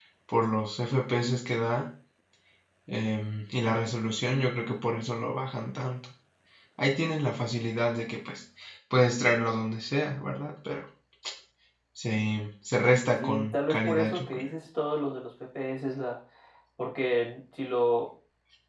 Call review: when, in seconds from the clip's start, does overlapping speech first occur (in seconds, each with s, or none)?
13.2 s